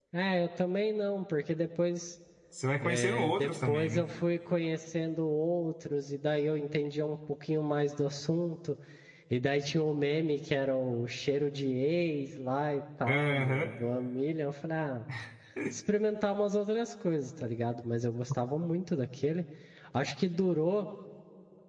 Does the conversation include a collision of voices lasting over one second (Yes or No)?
Yes